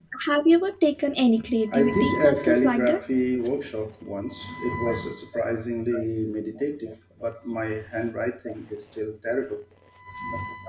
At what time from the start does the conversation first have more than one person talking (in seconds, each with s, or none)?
1.7 s